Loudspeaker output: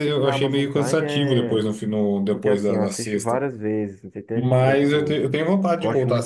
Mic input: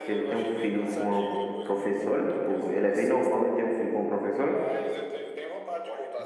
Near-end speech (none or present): present